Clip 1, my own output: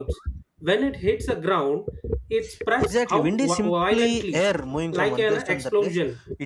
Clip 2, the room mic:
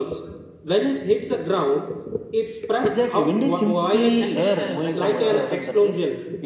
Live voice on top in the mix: No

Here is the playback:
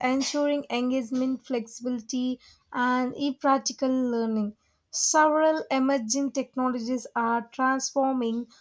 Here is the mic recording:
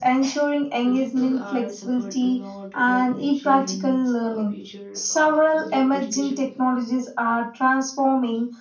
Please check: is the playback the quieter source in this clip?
No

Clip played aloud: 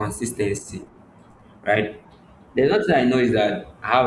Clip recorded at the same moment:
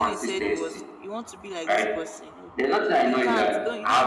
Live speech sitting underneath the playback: Yes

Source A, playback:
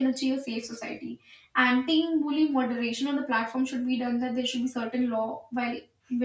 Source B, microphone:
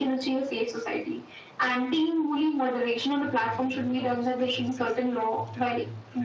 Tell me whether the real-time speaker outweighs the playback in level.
No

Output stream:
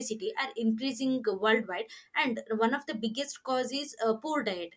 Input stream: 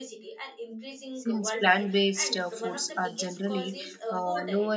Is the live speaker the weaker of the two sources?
No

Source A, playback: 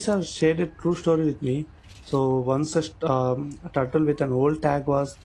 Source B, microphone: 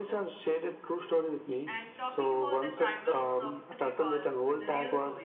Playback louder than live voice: Yes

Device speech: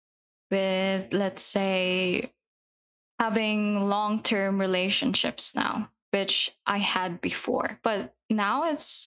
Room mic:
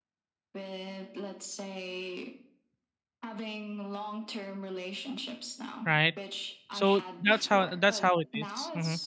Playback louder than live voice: No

